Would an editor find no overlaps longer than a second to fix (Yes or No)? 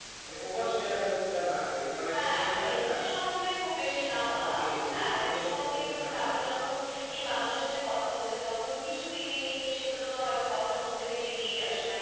No